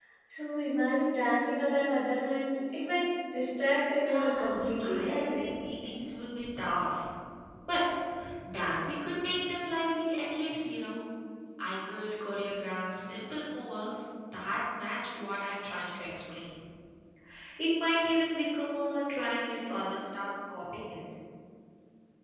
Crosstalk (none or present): present